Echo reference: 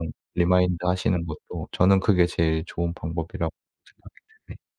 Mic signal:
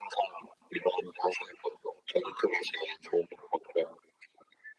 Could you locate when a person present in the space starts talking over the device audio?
none

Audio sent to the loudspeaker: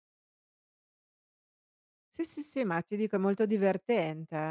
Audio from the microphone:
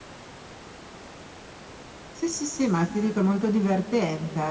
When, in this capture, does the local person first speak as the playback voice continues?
none

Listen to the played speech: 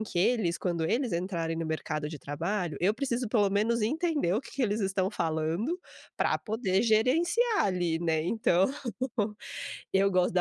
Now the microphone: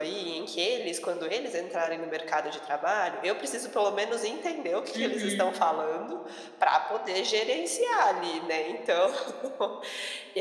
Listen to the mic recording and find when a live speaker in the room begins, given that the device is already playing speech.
5 s

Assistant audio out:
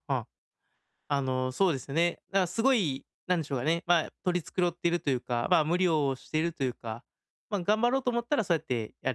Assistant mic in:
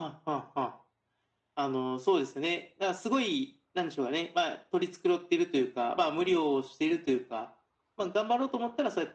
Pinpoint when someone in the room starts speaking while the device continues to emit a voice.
none

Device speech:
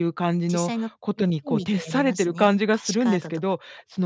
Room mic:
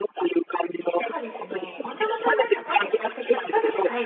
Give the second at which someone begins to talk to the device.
1 s

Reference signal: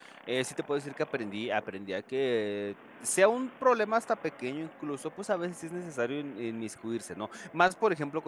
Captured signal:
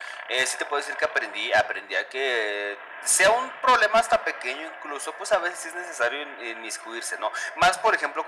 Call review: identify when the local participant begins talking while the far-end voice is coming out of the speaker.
none

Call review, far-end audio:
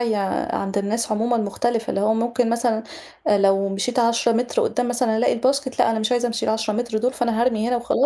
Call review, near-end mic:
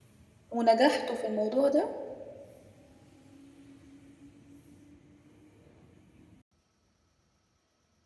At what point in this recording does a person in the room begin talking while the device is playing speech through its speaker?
0 s

